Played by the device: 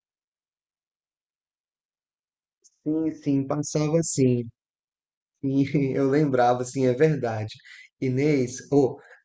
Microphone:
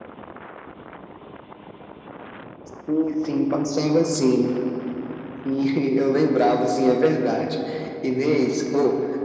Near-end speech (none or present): none